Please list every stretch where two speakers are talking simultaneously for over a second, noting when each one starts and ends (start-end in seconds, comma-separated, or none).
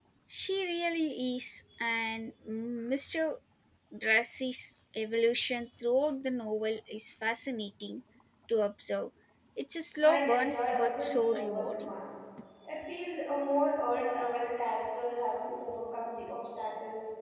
10.0-11.9